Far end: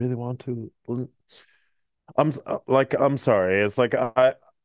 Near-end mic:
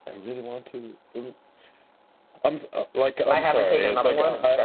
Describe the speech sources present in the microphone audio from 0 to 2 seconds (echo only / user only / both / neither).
echo only